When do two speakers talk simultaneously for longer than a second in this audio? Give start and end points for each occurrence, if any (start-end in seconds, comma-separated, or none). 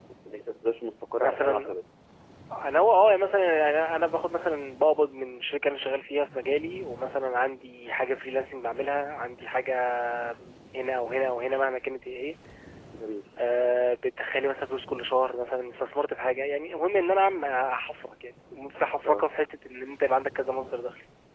none